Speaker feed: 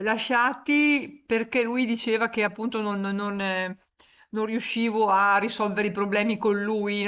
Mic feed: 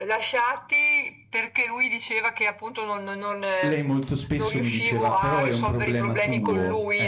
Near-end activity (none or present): present